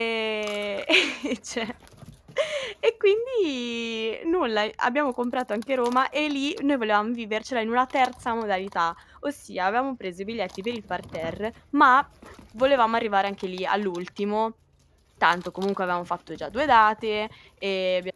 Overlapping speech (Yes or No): No